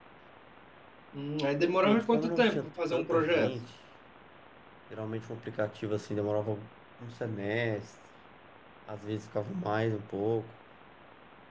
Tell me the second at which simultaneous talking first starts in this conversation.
1.6 s

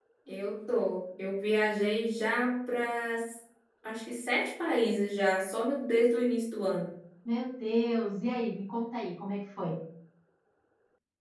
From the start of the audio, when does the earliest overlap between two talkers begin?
none

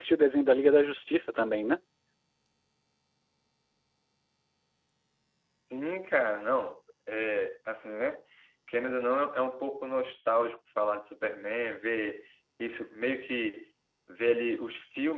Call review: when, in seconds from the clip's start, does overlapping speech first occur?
none

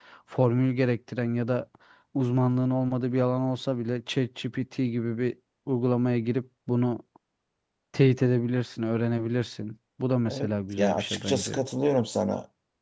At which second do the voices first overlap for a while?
10.3 s

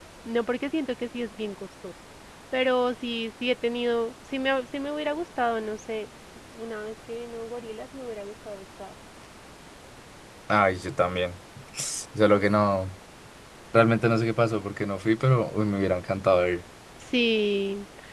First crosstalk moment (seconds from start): none

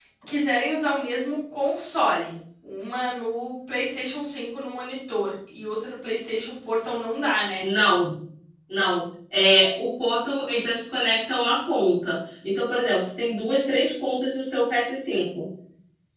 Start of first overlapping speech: none

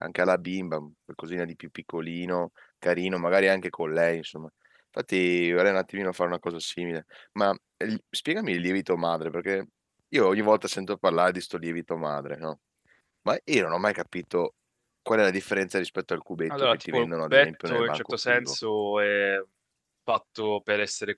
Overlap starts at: 16.5 s

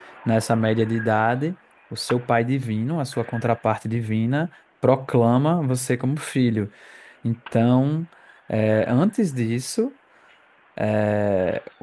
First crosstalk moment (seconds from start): none

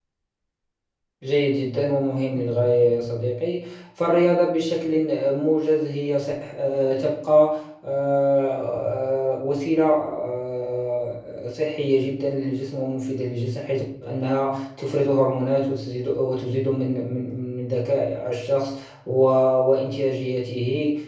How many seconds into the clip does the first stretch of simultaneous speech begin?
none

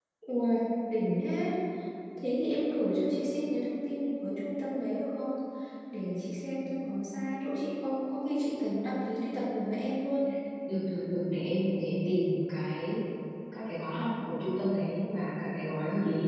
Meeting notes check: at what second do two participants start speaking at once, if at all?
none

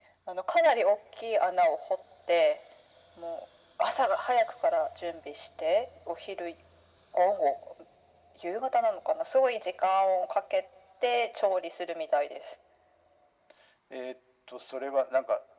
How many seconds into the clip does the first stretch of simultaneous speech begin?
none

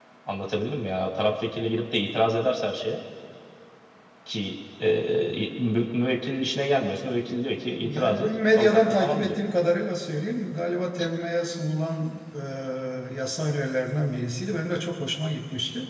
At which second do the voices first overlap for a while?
7.8 s

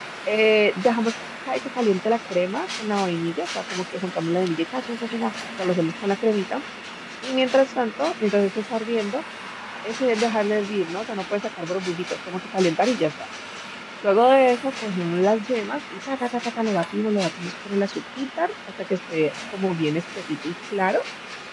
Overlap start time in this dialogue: none

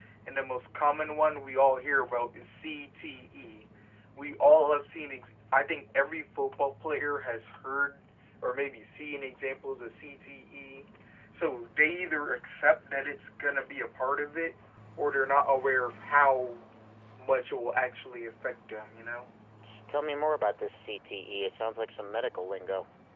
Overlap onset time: none

